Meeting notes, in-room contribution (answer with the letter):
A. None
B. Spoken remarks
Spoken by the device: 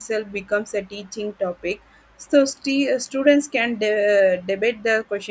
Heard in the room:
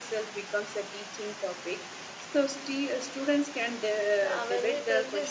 B